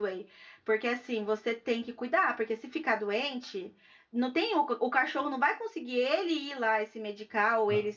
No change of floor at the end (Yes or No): Yes